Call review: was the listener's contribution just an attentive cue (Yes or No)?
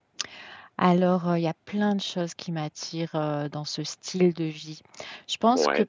Yes